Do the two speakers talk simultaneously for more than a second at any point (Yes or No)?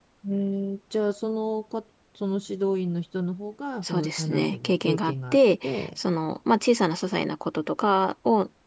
Yes